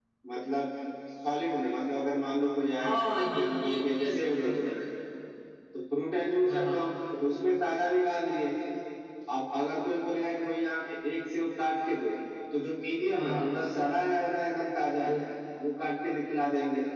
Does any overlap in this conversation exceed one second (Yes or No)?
Yes